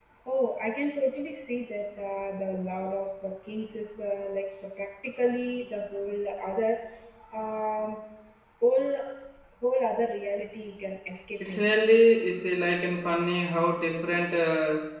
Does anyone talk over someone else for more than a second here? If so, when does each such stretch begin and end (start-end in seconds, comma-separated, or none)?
none